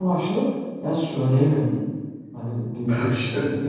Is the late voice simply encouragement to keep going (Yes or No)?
Yes